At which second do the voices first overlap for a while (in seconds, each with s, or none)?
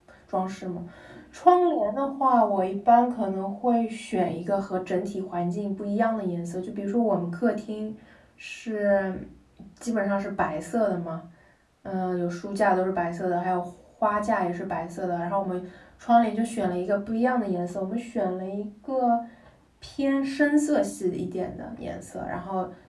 none